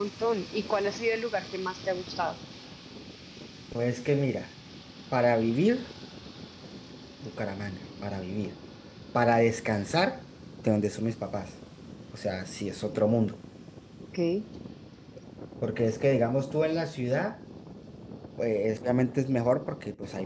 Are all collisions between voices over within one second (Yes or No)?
Yes